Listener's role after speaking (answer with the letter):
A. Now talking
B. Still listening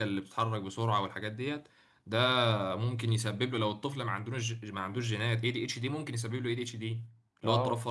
A